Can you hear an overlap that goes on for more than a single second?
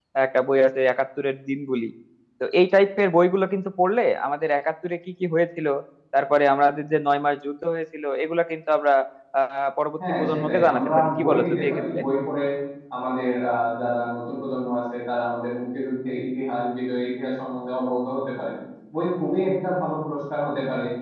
Yes, from 10.2 s

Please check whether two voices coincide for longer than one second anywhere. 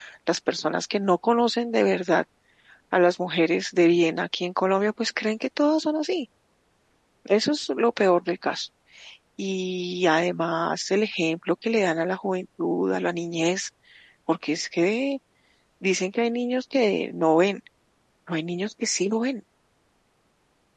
No

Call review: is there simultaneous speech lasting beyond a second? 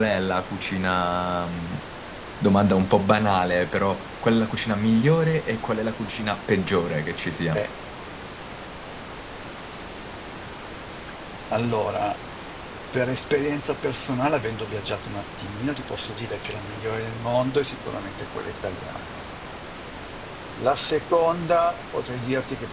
No

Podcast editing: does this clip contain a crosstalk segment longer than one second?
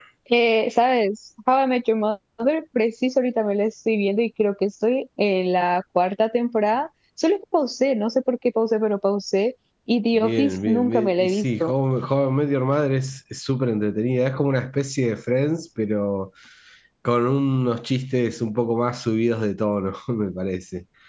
Yes, from 10.1 s

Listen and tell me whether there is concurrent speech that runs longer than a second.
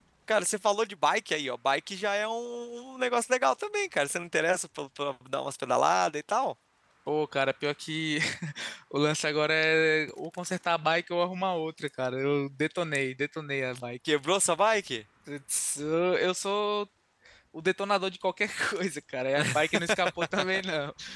No

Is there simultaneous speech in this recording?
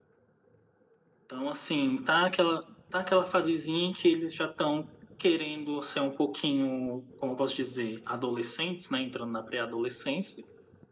No

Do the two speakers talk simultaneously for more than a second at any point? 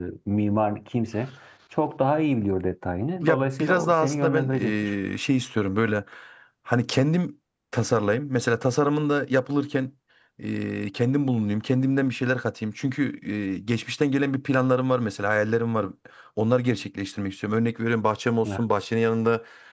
Yes, from 3.2 s

